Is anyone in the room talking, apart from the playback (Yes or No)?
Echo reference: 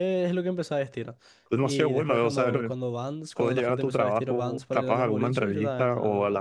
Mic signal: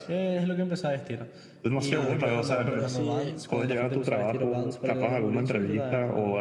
Yes